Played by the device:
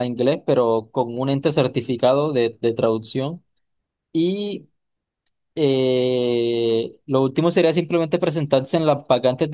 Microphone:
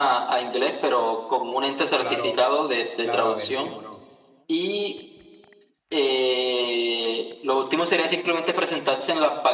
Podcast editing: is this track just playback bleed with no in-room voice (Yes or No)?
No